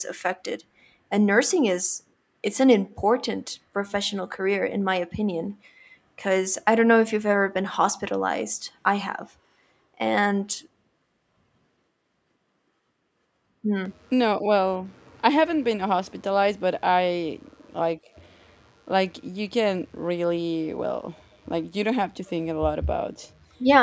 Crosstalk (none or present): none